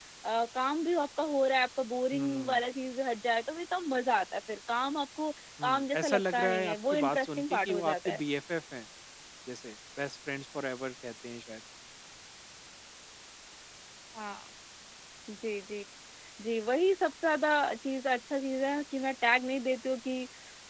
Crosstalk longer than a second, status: present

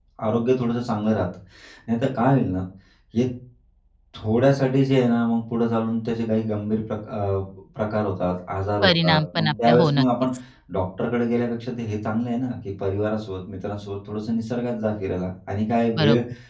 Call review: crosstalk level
present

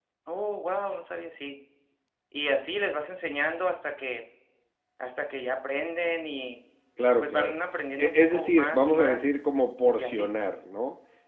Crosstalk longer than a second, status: present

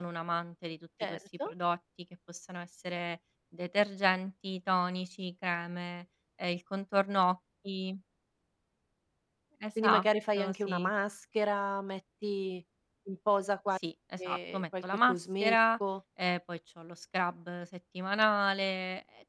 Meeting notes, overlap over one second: present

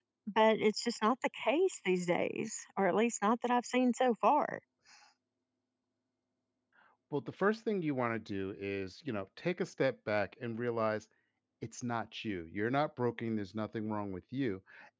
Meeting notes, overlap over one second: none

